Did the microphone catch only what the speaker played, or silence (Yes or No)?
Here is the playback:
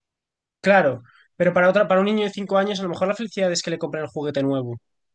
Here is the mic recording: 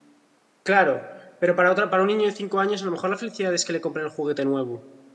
Yes